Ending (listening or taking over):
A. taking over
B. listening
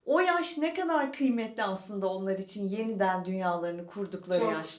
A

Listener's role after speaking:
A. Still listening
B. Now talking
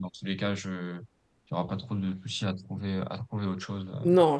B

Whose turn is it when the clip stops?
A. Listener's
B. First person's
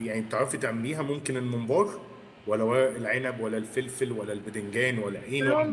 A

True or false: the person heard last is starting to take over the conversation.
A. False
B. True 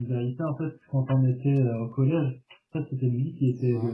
A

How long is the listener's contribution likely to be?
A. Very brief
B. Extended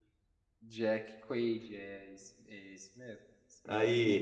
B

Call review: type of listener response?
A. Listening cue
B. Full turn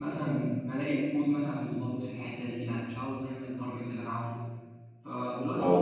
A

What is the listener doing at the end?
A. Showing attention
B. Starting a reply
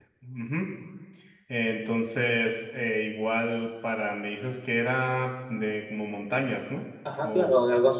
B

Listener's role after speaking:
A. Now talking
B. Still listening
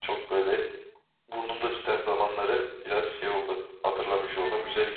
A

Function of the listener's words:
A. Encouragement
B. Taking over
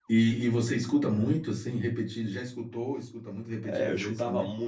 B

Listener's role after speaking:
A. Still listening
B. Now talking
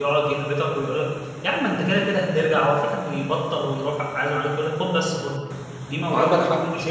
A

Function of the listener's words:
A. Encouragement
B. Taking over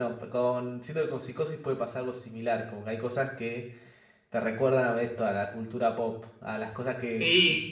B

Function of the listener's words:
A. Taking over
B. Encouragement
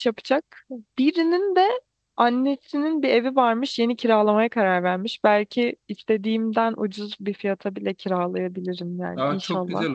A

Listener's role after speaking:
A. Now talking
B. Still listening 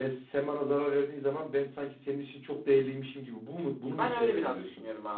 A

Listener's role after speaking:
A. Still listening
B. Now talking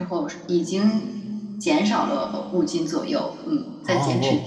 B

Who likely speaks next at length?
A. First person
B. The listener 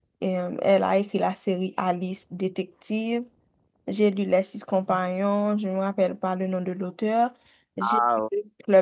A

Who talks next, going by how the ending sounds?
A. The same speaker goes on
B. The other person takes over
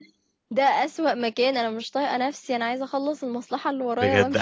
B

